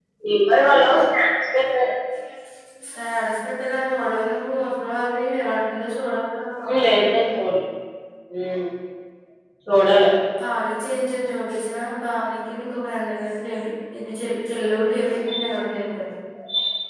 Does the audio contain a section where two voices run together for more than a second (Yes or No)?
No